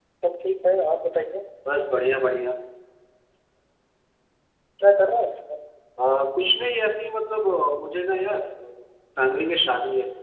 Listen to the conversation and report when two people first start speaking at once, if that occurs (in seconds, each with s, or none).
none